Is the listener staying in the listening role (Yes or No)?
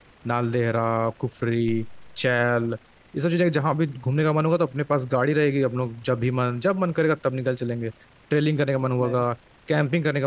Yes